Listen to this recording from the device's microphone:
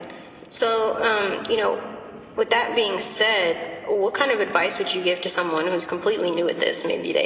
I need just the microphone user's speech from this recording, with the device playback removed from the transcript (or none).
none